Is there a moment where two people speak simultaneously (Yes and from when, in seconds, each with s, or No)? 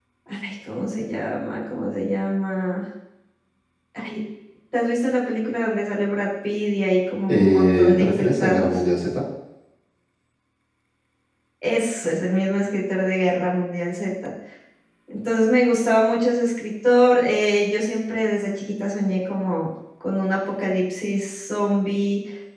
Yes, from 7.3 s